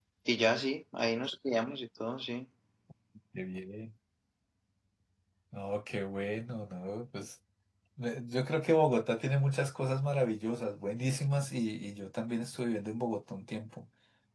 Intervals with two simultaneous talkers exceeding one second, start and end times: none

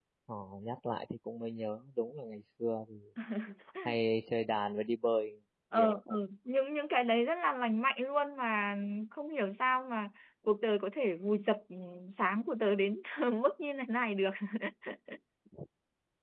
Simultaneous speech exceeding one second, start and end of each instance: none

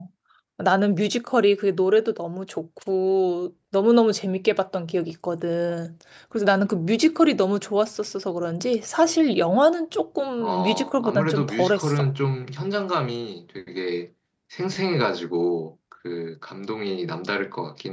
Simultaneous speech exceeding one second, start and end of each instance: 10.4-11.9

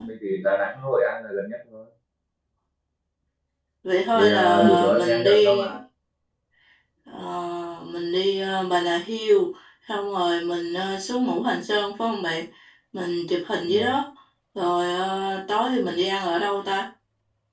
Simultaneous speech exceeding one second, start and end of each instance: 4.2-5.7

